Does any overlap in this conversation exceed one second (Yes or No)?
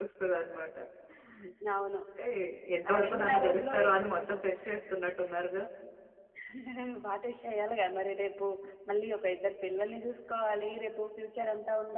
Yes